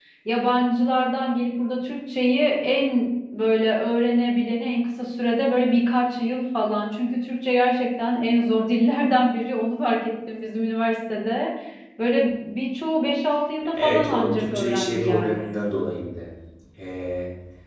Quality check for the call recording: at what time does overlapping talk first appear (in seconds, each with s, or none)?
13.8 s